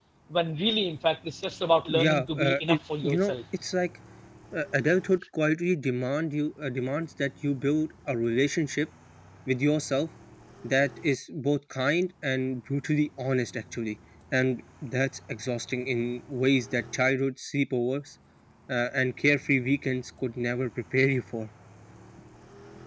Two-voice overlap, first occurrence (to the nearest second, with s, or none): 2 s